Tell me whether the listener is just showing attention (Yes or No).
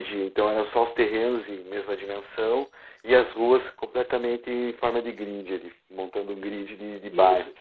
No